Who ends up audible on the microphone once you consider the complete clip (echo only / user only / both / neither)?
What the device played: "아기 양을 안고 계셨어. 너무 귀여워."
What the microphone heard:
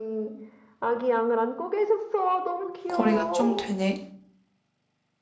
both